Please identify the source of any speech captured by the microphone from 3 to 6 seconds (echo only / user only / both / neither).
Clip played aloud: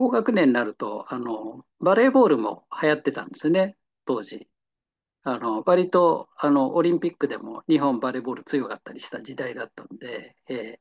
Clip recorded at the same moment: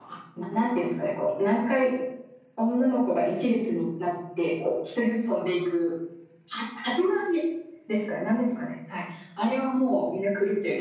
user only